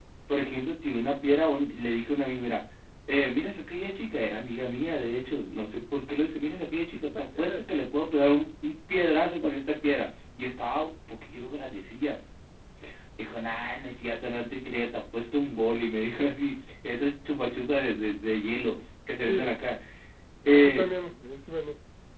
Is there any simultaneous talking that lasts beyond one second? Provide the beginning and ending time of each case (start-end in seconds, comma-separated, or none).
none